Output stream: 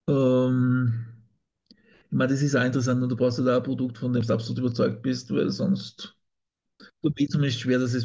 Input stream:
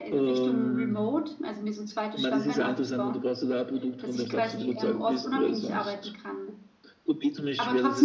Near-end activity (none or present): present